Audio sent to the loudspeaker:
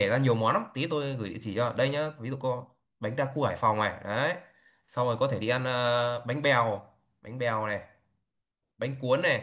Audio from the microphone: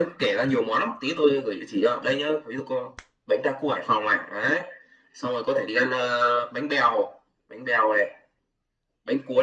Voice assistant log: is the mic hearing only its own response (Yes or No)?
Yes